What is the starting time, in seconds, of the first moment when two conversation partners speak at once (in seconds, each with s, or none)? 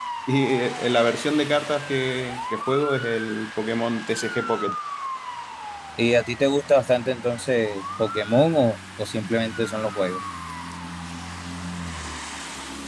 none